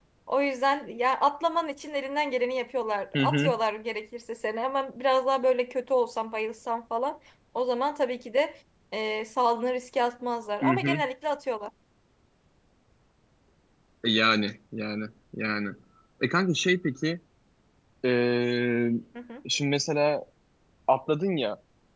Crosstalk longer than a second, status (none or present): none